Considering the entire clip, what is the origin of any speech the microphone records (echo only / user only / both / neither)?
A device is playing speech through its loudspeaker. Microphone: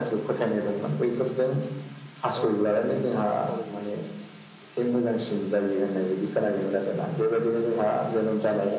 both